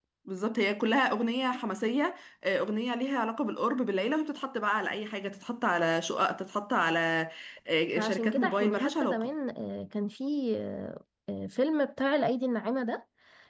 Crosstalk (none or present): present